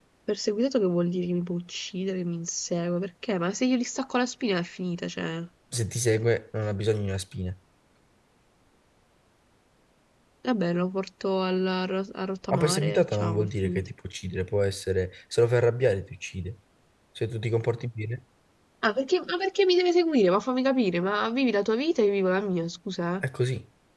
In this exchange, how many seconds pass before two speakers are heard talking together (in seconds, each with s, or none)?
12.5 s